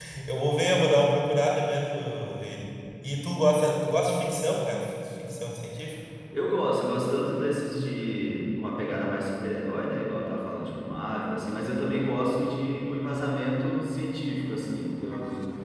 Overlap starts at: none

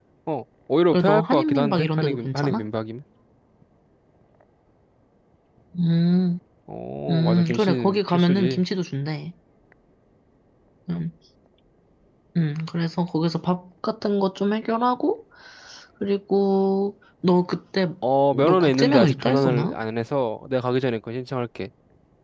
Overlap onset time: 0.9 s

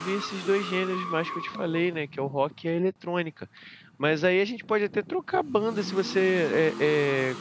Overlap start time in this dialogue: none

